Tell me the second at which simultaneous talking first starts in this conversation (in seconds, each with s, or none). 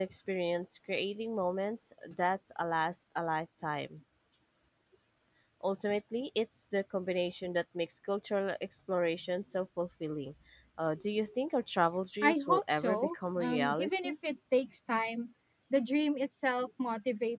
12.2 s